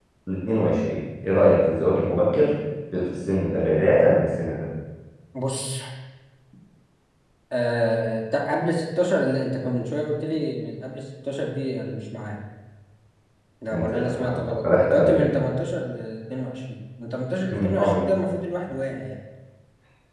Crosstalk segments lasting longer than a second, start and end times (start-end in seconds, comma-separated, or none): 13.7-15.3